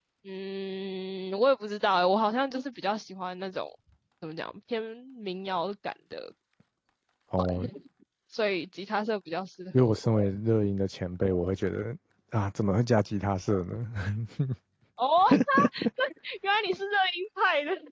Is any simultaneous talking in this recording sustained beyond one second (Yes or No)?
No